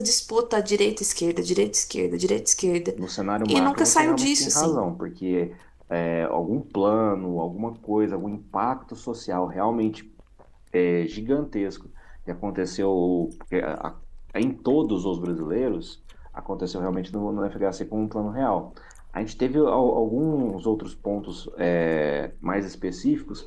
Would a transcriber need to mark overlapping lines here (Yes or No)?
Yes